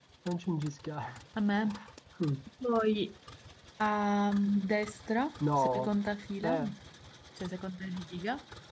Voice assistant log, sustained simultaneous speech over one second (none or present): none